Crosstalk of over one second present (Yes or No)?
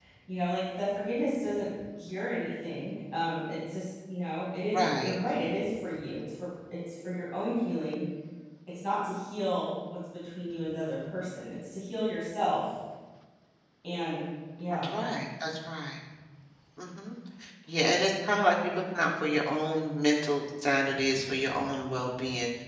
No